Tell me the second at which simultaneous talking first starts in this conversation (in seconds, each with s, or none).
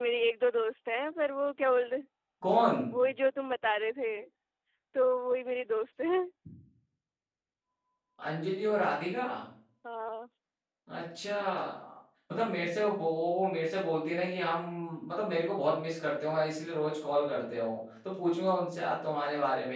none